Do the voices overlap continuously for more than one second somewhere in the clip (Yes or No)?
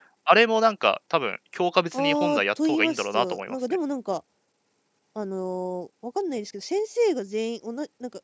Yes